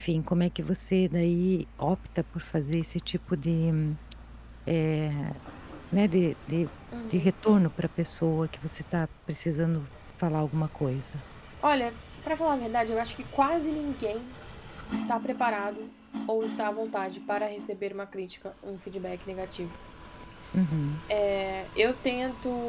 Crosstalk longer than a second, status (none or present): none